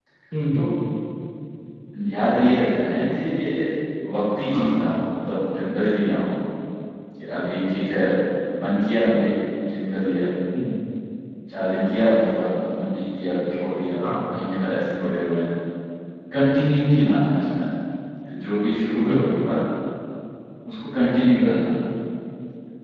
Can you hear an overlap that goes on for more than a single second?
No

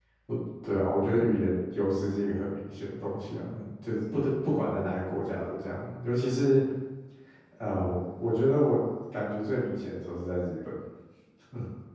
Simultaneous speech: No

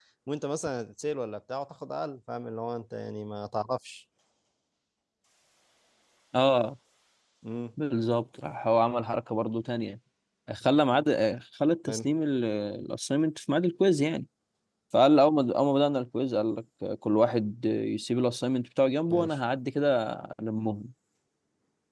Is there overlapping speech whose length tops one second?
No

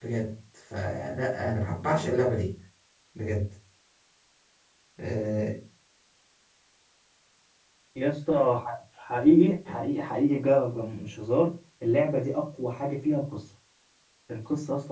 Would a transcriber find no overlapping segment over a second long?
Yes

